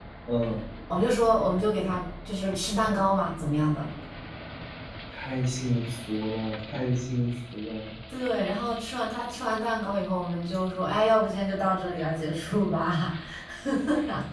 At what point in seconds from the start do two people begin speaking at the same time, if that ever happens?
none

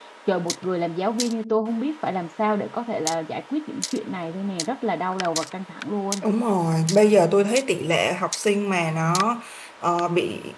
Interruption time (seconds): none

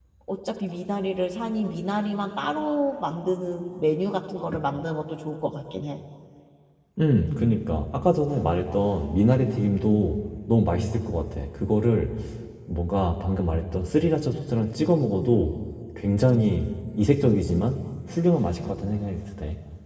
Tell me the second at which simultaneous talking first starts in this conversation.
none

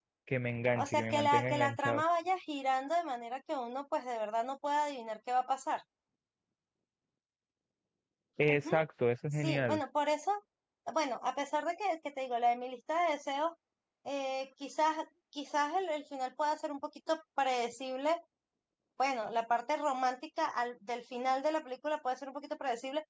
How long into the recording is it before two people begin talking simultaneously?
0.8 s

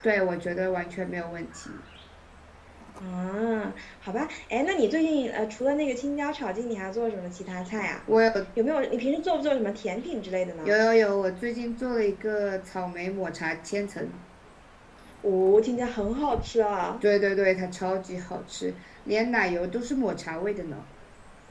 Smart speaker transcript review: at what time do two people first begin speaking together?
none

